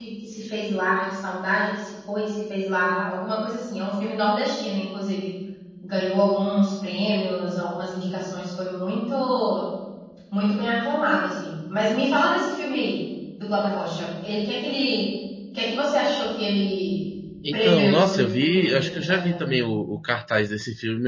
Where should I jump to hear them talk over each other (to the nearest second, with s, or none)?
17 s